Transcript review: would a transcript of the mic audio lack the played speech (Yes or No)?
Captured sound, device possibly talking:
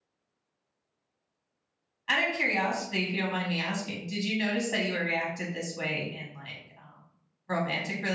Yes